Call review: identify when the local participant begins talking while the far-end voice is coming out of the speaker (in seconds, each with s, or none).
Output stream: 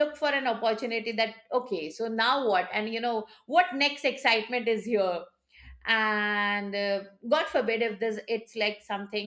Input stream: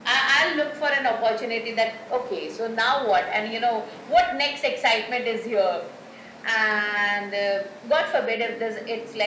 none